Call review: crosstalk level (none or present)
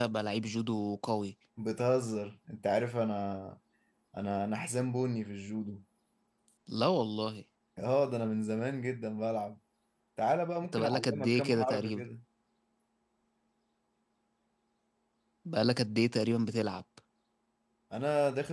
present